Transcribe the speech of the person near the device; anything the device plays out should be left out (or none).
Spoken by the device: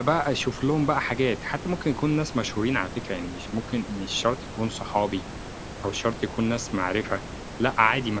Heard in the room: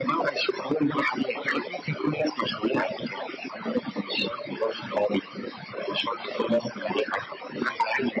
none